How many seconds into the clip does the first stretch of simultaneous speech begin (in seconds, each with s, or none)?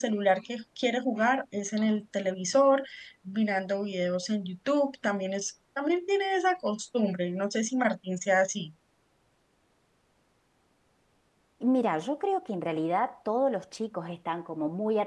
none